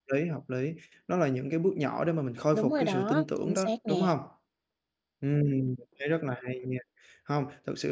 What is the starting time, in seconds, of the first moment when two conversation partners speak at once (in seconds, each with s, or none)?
2.5 s